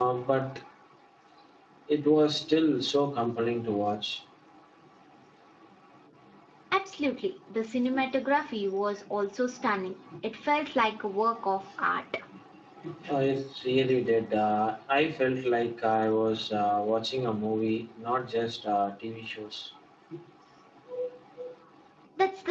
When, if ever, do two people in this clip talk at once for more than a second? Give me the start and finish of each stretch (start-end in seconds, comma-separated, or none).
none